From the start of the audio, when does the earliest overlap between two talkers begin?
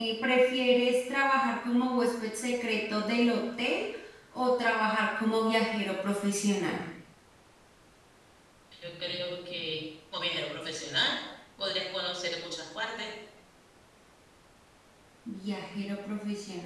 none

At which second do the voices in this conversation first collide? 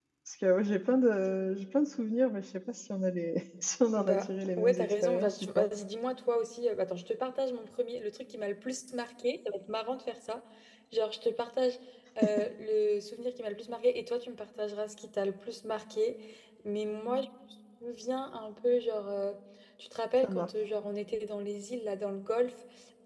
4.0 s

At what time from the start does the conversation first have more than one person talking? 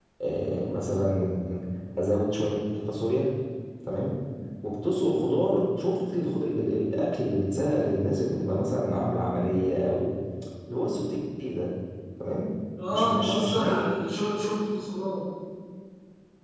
12.9 s

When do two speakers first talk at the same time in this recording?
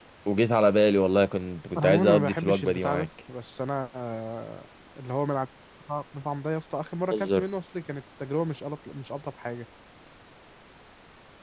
1.8 s

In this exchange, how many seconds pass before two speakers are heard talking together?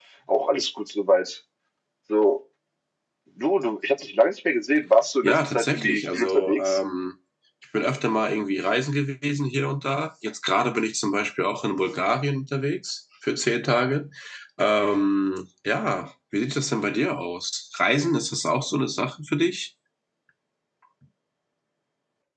5.2 s

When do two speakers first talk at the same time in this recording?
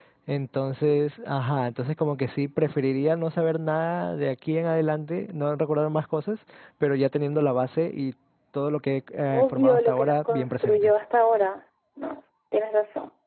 9.3 s

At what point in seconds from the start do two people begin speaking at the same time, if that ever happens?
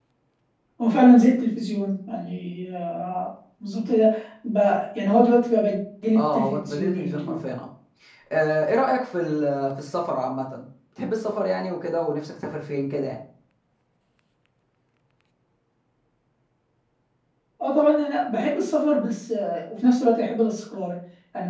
6.1 s

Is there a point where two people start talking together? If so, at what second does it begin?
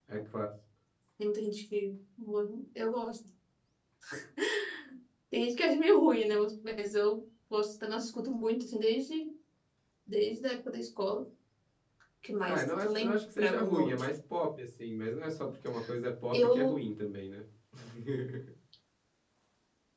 12.5 s

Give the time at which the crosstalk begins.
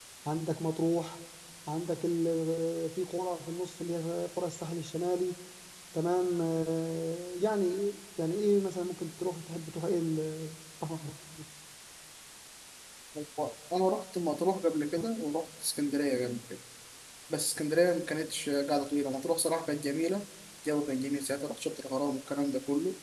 none

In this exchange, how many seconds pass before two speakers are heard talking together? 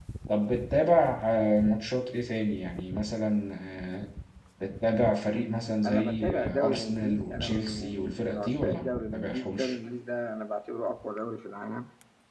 5.8 s

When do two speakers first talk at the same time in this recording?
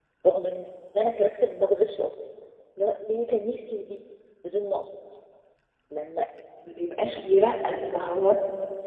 none

